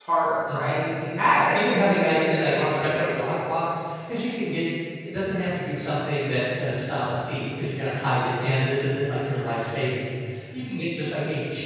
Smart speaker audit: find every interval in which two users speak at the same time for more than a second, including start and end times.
1.5-3.4

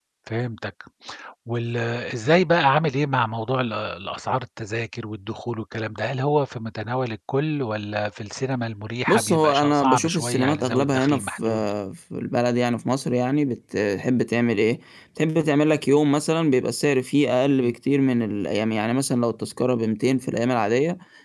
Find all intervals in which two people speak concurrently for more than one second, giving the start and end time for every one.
9.1-11.4

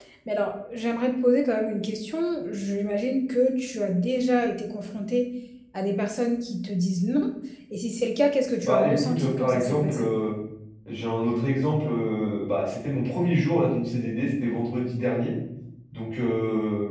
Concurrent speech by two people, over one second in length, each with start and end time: 8.6-10.1

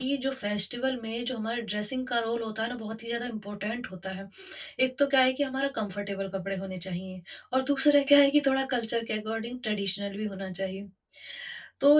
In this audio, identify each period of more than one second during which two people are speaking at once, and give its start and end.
none

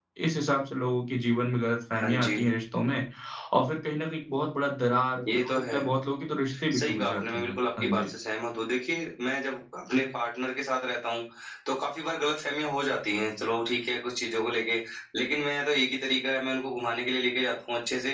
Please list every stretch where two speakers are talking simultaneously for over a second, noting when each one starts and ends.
6.7-8.1

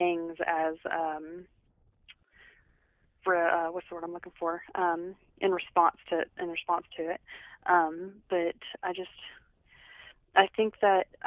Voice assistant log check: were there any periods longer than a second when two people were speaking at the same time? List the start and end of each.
none

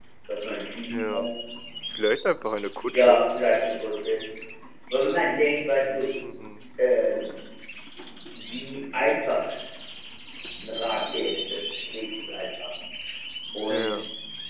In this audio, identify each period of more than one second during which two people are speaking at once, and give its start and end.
none

